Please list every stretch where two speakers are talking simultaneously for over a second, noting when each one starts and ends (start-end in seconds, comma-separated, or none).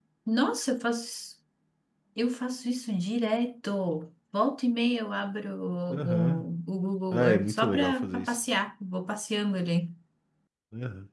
7.1-8.3